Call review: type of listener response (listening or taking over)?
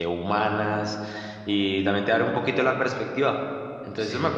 taking over